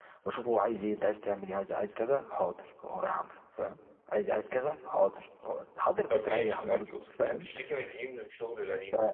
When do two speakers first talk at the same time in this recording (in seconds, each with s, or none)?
6.1 s